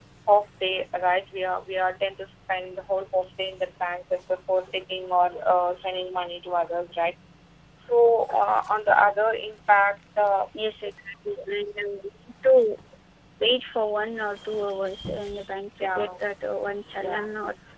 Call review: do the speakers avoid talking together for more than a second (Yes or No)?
Yes